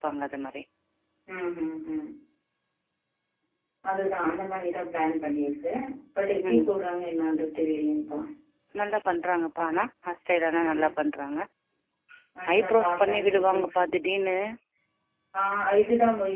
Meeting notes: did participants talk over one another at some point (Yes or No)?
Yes